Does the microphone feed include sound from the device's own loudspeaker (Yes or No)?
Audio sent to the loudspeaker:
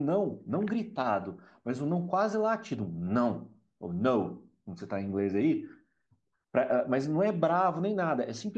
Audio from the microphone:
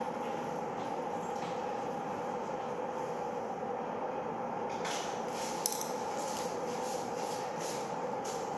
No